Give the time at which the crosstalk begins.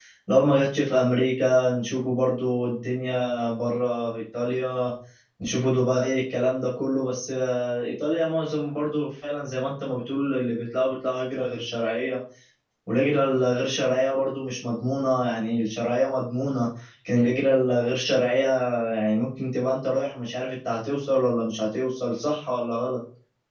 none

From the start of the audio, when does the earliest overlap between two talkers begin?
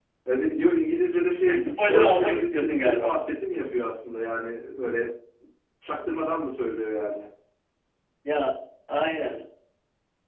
1.6 s

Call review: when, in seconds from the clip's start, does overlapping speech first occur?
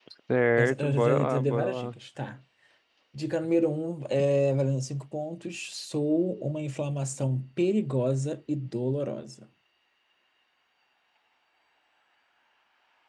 0.6 s

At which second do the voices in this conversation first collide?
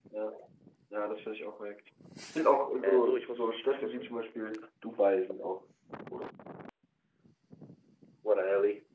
2.8 s

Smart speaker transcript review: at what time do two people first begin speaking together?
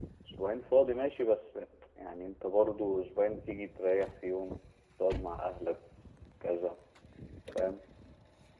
none

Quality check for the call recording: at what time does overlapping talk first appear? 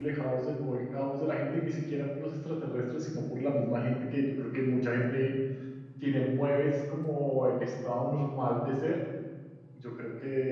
none

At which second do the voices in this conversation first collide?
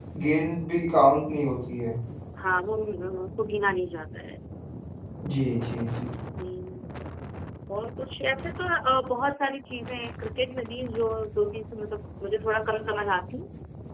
none

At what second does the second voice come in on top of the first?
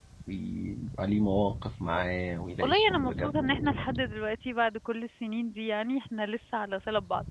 2.6 s

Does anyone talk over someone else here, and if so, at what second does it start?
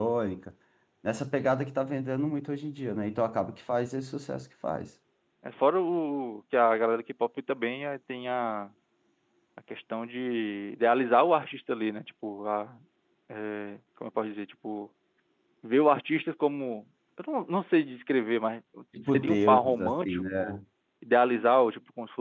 19.0 s

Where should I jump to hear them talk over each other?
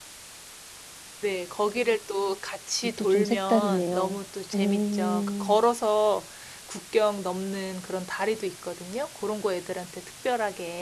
3.0 s

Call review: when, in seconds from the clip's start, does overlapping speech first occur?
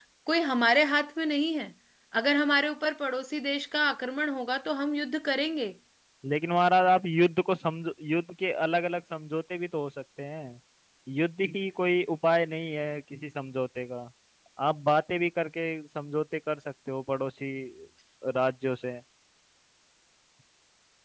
none

